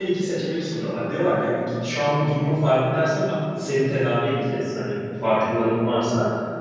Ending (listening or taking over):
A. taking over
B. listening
B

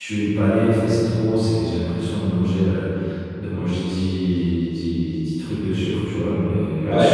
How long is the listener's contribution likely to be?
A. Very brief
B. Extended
A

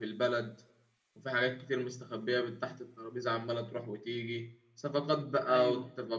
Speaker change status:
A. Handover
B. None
B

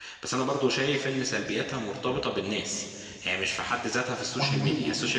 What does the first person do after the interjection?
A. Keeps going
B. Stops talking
A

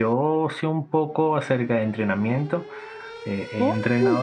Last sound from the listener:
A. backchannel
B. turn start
A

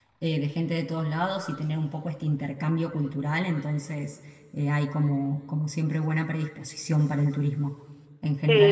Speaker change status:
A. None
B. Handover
B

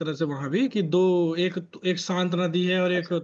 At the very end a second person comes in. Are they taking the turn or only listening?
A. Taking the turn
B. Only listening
B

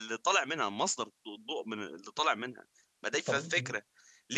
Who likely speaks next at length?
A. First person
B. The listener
A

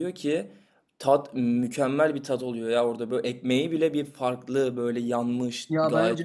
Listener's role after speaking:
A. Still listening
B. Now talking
B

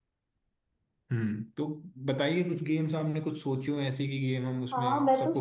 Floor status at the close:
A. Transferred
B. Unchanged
A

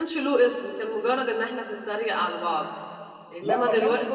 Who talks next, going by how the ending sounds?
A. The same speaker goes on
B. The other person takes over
B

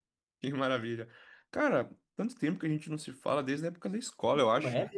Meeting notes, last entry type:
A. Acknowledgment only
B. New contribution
B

